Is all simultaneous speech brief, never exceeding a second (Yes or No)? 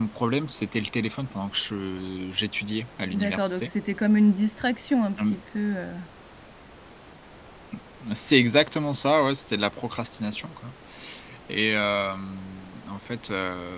Yes